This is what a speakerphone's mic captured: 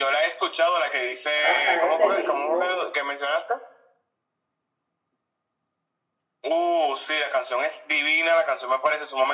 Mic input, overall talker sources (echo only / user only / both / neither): both